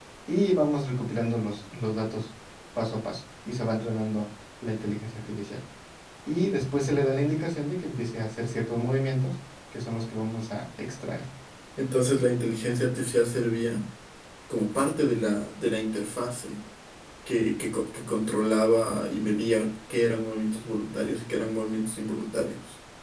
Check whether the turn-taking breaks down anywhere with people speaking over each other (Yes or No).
No